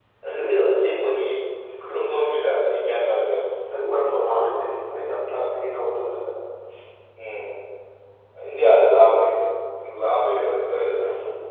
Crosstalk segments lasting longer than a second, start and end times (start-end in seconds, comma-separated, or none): none